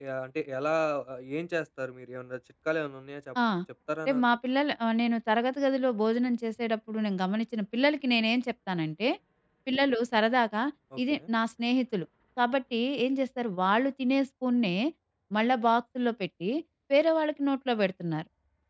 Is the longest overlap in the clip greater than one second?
No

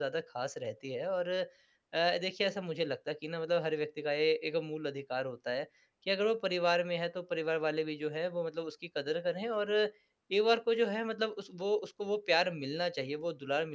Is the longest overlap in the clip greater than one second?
No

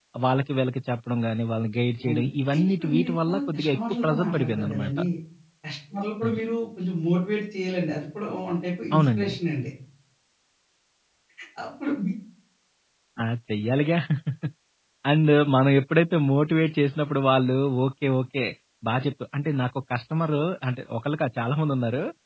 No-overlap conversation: No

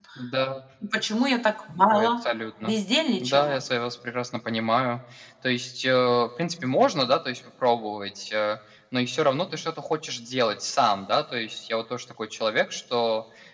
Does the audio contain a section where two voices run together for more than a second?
No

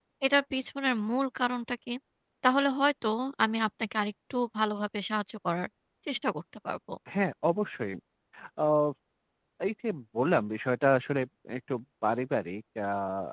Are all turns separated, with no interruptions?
Yes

